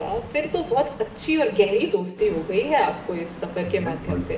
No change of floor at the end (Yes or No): No